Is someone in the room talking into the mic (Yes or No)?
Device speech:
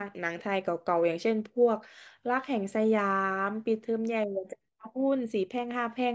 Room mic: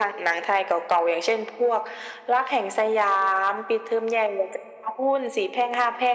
No